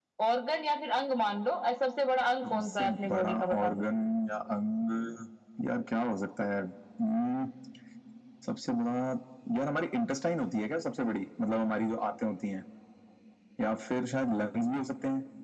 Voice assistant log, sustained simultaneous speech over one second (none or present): present